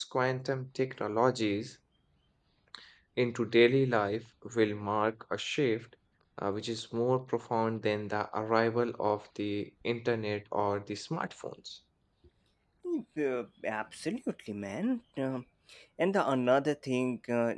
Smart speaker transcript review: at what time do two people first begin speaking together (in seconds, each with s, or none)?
none